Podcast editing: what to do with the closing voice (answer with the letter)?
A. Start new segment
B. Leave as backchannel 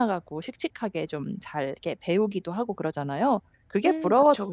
A